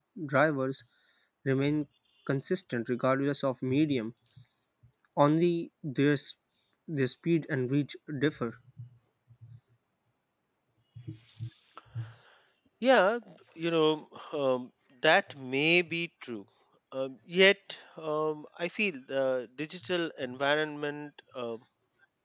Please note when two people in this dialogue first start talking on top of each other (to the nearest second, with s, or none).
none